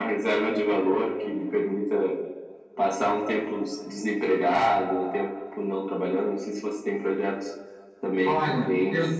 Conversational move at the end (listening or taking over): taking over